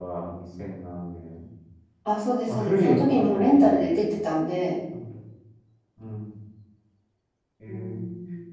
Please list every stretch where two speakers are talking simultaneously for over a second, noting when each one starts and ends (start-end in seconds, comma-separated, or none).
2.5-3.9